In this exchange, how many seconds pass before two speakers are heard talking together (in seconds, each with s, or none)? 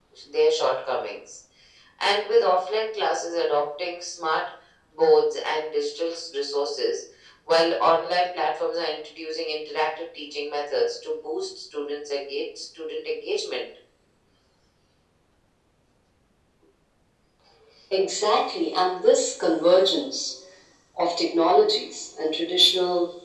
none